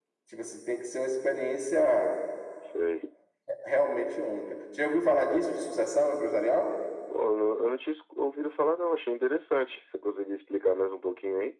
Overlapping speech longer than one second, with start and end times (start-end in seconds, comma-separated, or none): none